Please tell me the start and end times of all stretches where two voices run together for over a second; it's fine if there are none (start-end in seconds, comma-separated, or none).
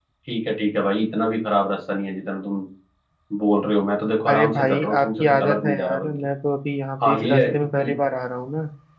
4.3-6.1